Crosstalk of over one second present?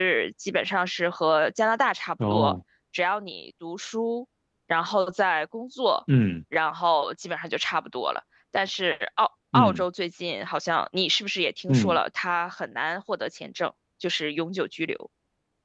No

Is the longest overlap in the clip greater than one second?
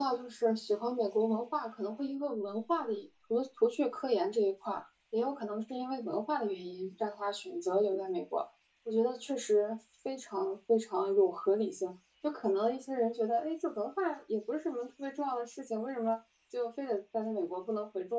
No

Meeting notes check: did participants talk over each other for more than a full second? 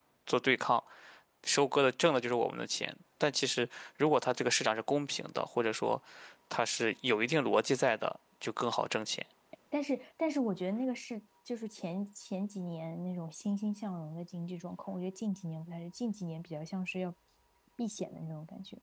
No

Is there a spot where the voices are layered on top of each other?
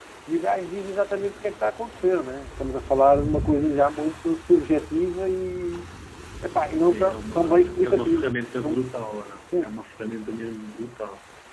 Yes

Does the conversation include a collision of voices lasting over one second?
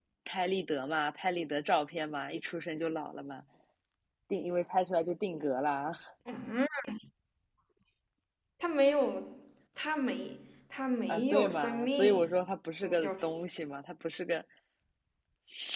Yes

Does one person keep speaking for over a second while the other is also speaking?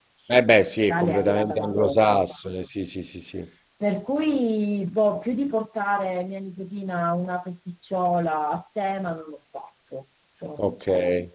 Yes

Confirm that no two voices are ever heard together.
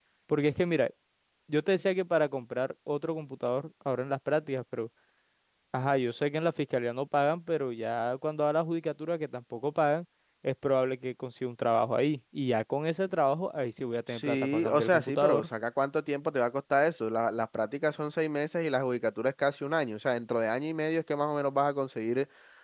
No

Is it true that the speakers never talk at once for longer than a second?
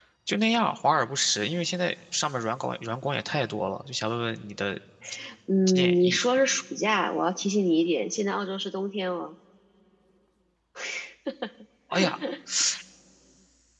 Yes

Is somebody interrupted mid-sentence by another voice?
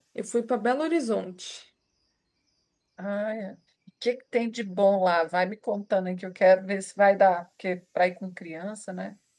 No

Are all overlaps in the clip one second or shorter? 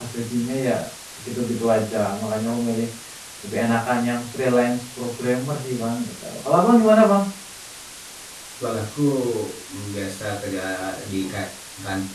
Yes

